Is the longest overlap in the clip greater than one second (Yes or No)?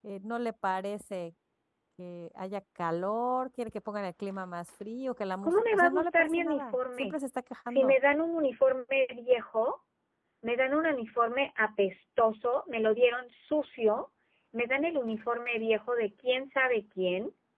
Yes